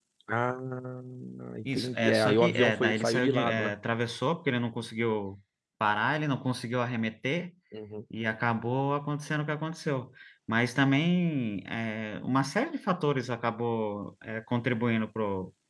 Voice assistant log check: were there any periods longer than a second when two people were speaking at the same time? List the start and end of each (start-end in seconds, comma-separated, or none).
1.6-3.7